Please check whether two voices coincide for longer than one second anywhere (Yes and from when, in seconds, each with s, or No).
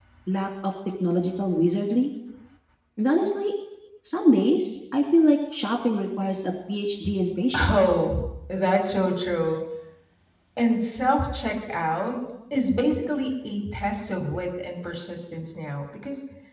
No